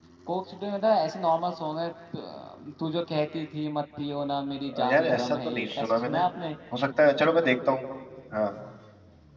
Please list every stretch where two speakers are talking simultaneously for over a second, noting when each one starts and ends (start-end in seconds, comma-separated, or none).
4.7-6.2